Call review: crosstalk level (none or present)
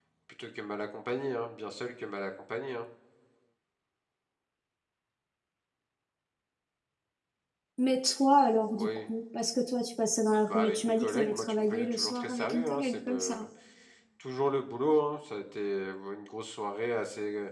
present